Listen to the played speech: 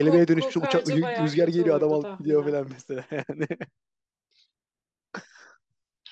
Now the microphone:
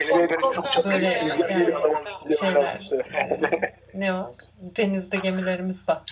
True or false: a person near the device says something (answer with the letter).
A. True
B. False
A